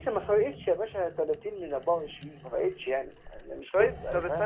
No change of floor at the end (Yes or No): No